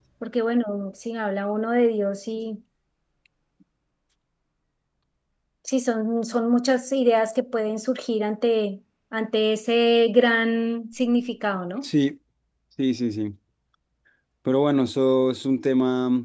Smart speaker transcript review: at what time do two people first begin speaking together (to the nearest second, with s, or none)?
none